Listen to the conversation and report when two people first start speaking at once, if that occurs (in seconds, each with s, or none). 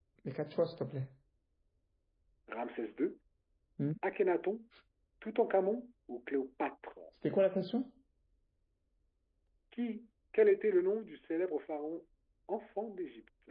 none